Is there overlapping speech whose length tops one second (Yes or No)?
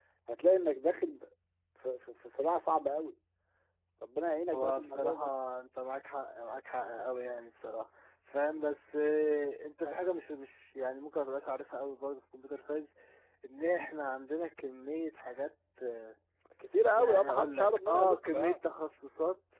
Yes